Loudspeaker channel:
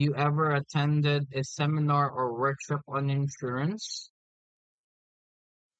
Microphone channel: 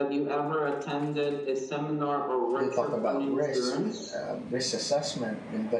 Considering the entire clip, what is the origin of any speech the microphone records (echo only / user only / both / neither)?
both